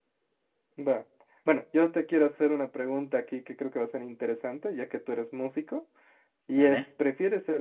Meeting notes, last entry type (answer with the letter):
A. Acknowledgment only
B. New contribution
A